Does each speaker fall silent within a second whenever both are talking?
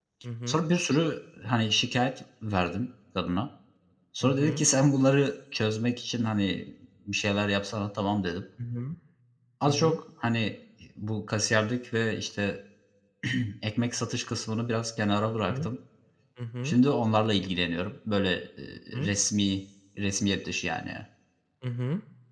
Yes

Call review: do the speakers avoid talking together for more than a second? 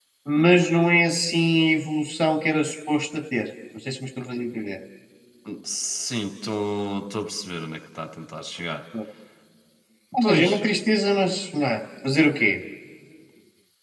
Yes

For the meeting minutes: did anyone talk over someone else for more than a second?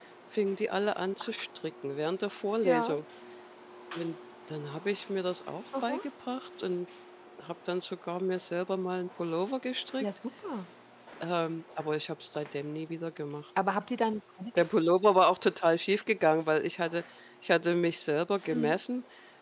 No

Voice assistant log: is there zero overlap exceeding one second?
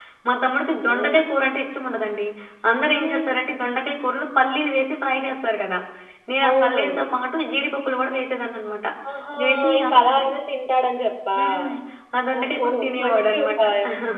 No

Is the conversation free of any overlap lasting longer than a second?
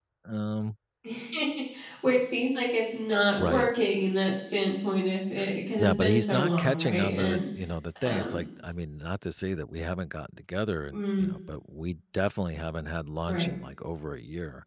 No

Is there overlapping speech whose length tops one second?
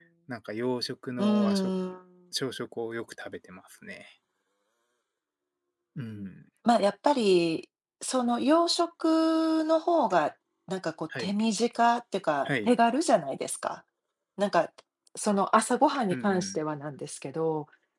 No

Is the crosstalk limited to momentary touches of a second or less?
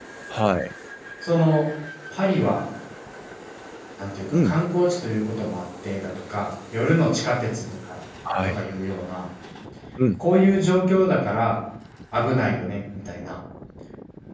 Yes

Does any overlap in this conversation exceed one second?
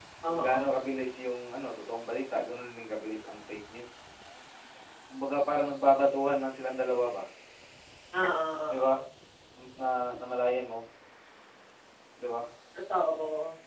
No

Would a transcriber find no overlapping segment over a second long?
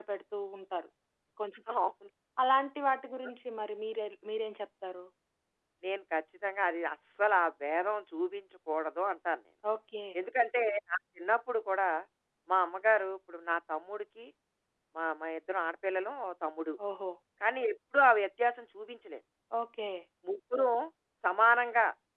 Yes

